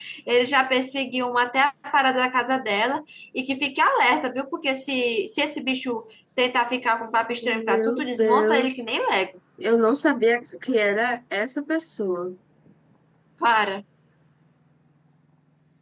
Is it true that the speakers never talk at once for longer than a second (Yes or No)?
No